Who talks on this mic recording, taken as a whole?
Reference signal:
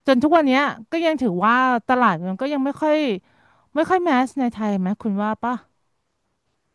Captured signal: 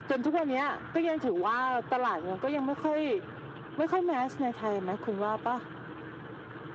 echo only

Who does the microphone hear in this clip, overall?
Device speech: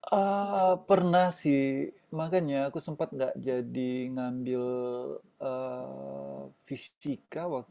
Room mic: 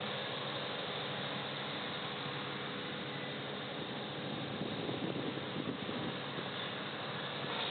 neither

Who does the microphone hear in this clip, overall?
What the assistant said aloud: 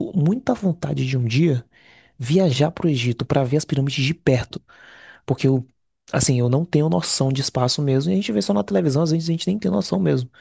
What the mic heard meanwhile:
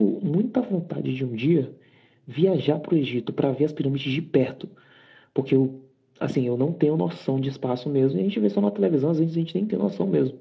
echo only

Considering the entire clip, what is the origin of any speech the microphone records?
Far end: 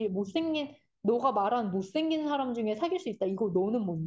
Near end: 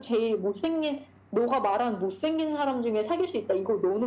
echo only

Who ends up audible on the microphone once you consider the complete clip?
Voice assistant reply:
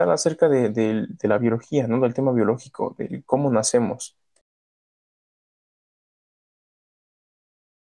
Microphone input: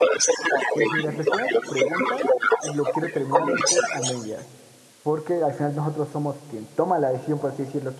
both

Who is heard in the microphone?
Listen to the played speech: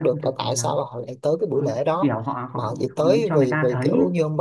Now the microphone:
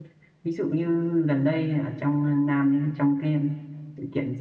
user only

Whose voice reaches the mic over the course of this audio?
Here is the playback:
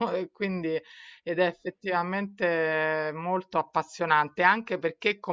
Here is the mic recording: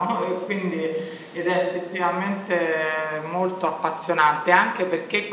echo only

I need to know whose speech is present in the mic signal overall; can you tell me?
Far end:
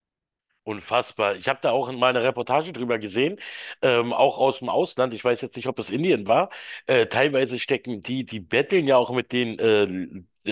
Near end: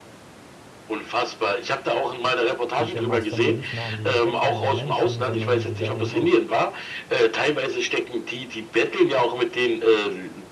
both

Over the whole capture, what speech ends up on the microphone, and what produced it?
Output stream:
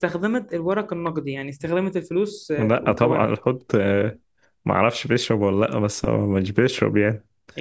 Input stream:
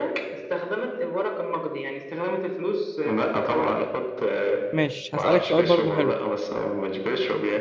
both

